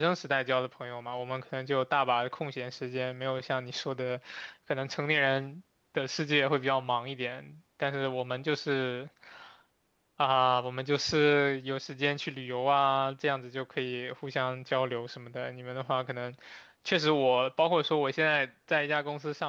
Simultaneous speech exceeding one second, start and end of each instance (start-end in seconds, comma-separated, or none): none